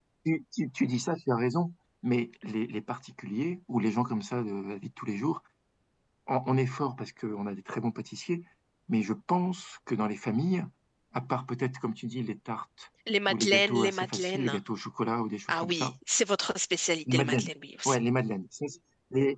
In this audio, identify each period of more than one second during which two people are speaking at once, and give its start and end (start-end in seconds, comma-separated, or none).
13.3-14.6